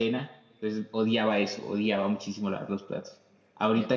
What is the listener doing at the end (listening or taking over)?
listening